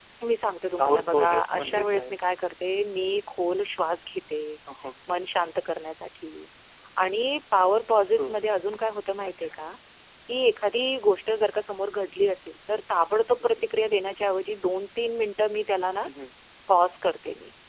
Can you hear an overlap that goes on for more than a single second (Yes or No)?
Yes